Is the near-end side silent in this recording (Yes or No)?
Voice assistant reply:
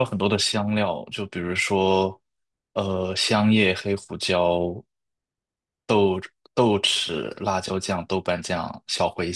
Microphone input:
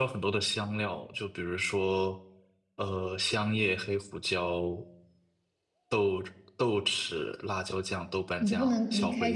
No